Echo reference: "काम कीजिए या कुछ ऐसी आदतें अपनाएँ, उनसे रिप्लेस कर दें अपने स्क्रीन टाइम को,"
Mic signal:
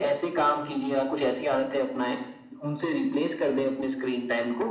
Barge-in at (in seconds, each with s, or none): none